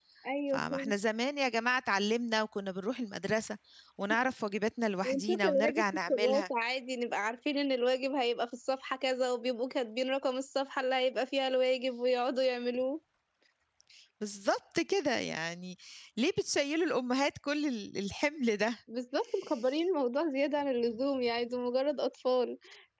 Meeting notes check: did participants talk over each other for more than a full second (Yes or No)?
Yes